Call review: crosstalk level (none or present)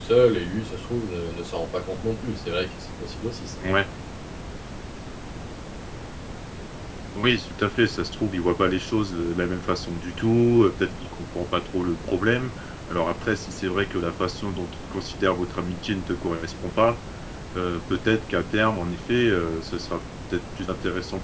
none